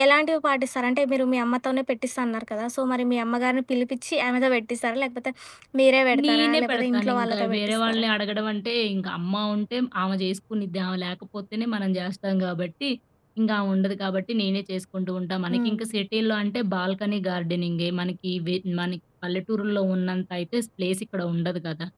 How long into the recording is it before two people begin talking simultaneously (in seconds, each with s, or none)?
6.2 s